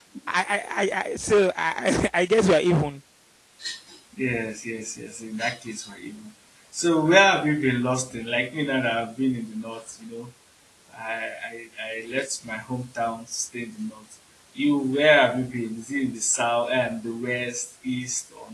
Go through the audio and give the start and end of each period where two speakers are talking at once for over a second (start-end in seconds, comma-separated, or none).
none